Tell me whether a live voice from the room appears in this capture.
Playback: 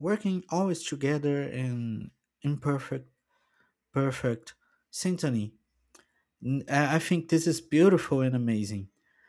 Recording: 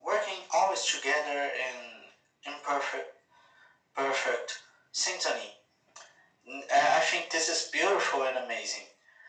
No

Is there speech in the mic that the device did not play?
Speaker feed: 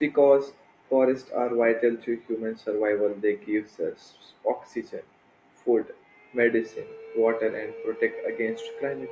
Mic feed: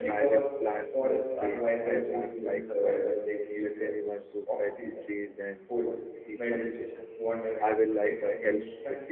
Yes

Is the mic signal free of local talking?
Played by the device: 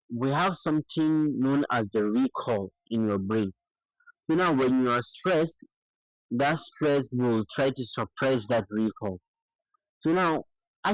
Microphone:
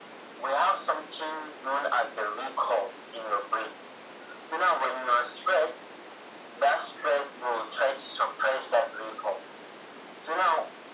Yes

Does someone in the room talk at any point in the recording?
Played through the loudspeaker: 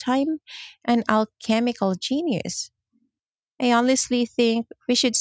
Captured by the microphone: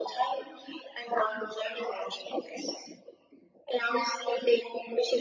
No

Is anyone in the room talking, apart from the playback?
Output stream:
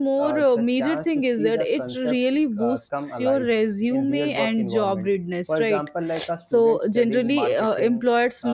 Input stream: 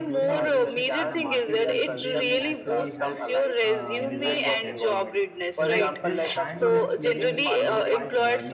Yes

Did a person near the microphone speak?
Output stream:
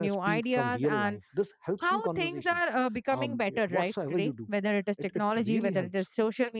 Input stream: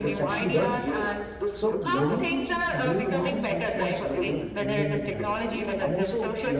Yes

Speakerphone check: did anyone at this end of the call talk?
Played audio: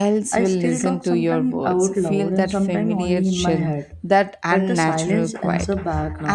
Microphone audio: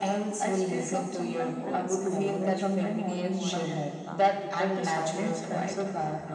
Yes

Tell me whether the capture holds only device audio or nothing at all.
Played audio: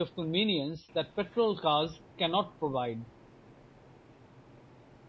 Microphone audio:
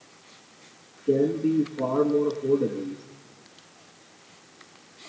No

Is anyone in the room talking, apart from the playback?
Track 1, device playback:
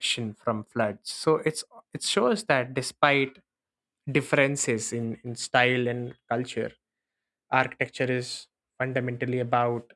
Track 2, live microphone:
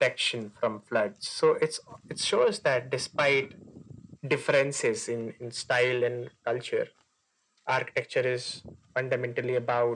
No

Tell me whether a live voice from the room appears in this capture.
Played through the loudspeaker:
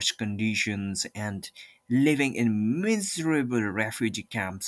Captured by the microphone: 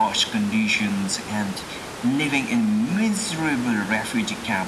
No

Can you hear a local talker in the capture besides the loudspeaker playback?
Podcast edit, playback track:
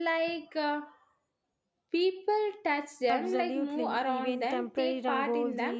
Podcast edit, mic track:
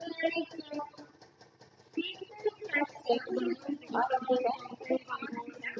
No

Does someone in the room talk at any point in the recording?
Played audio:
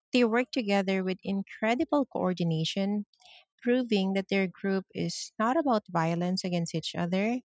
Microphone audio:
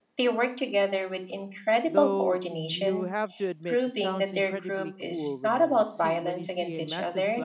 Yes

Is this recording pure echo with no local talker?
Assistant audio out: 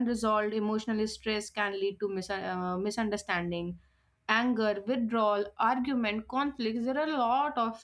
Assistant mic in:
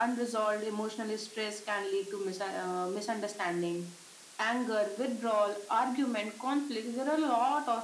Yes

